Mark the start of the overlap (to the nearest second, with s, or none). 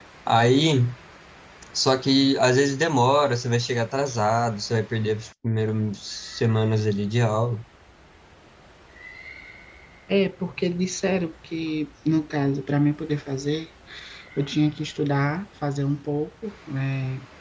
none